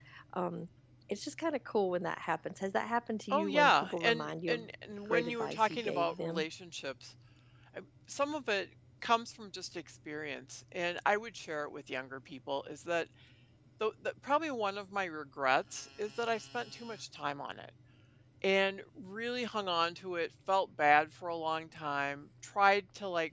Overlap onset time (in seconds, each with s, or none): 3.3 s